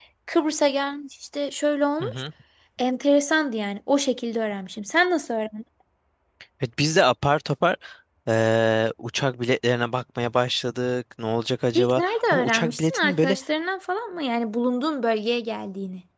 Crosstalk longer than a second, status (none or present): present